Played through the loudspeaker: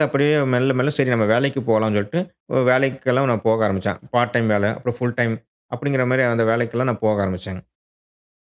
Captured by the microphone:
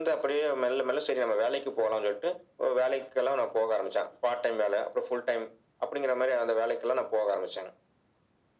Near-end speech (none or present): none